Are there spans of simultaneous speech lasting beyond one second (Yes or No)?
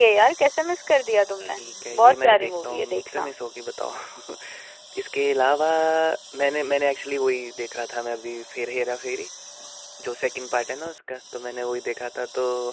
Yes